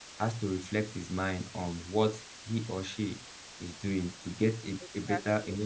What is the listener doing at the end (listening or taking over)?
listening